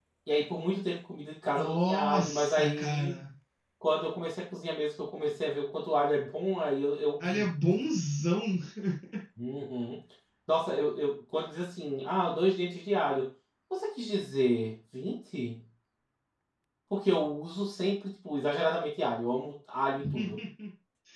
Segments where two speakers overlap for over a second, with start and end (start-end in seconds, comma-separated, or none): 1.6-3.2